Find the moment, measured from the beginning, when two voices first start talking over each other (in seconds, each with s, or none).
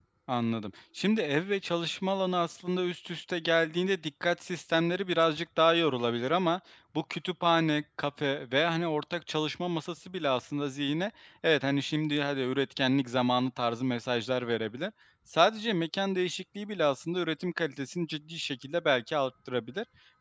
none